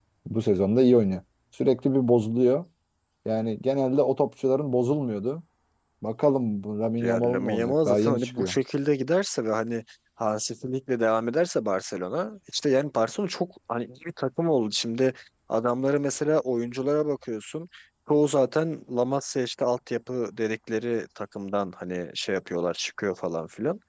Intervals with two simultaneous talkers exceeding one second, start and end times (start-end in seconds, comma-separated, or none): 7.0-8.6